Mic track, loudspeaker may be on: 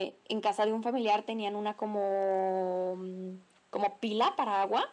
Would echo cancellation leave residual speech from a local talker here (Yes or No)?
No